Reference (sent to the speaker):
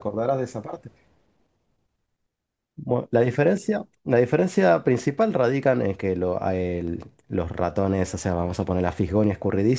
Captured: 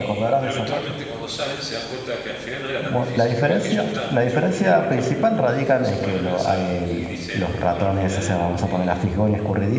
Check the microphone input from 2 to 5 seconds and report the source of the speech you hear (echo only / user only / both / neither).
both